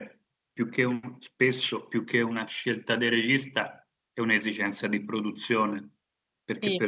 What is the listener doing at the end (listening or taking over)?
listening